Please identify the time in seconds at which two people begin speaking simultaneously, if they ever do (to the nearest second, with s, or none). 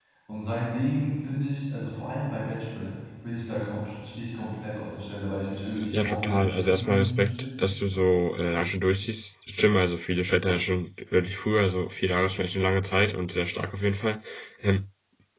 6 s